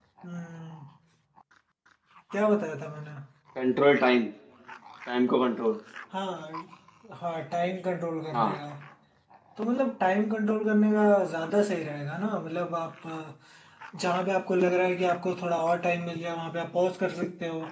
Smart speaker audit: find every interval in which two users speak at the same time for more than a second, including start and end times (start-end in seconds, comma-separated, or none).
none